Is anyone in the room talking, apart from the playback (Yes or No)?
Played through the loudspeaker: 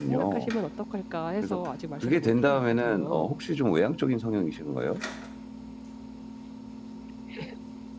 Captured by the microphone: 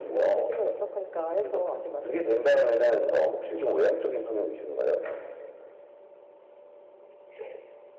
No